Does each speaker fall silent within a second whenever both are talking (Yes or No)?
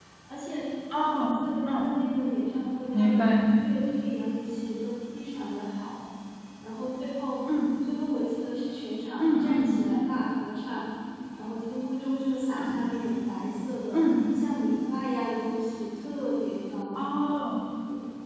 Yes